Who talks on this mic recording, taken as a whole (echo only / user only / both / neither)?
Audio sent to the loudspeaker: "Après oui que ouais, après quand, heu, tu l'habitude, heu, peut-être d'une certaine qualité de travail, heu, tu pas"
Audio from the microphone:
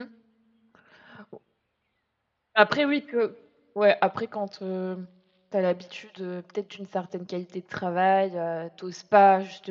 echo only